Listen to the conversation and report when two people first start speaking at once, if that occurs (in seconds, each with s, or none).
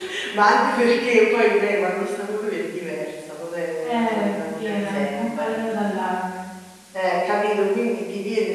3.8 s